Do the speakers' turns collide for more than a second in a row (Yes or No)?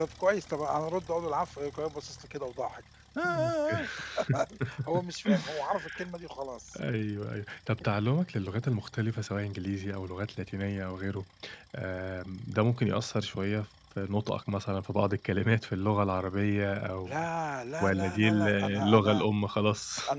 Yes